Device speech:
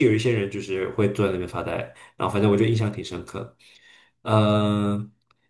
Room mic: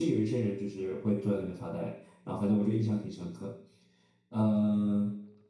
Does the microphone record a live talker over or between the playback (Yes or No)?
No